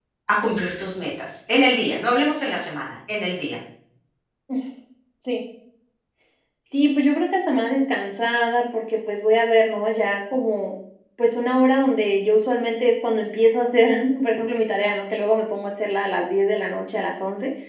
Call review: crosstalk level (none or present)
none